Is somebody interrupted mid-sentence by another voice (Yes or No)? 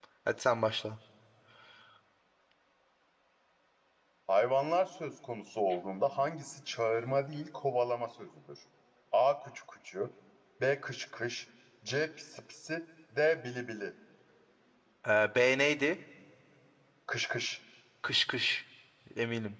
No